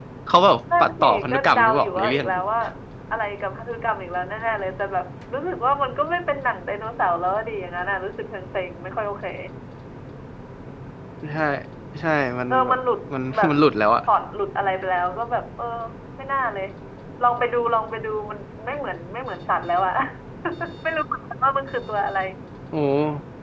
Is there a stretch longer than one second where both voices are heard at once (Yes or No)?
Yes